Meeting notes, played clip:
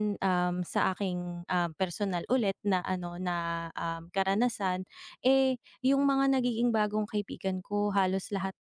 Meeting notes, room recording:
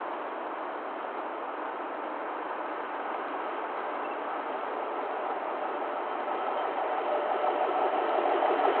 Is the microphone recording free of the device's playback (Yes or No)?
Yes